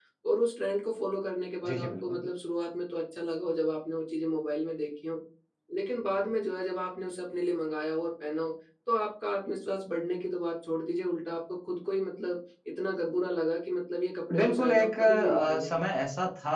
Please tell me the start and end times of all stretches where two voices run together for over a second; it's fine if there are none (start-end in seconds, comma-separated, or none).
14.3-15.8